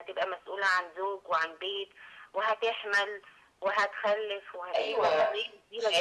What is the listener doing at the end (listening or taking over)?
taking over